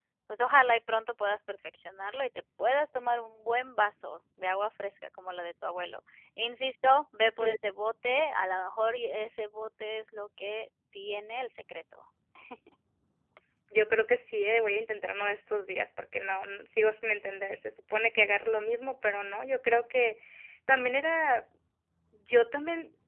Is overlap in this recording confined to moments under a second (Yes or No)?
Yes